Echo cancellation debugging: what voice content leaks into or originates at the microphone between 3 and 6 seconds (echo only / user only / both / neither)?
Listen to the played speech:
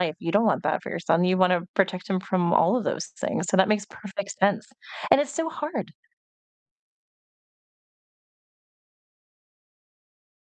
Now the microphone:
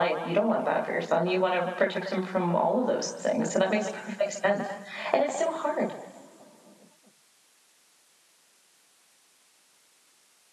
echo only